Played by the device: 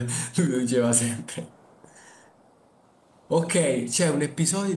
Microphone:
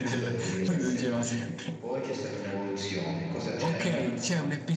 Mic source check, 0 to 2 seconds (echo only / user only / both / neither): both